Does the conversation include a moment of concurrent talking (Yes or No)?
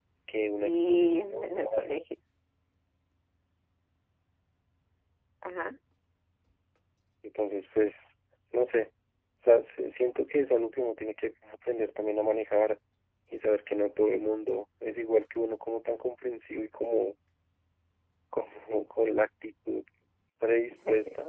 Yes